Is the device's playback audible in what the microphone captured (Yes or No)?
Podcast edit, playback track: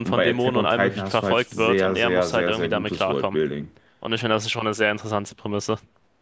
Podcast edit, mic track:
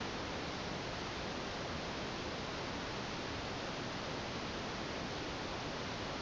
No